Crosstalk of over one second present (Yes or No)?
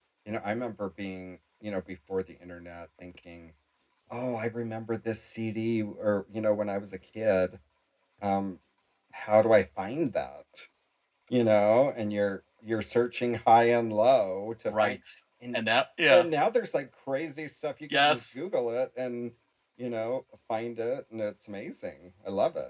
No